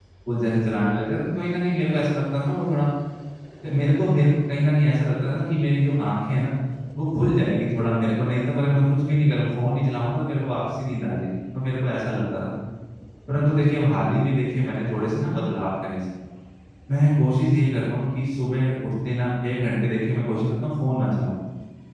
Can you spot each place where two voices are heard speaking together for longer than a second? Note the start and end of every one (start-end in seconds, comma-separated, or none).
none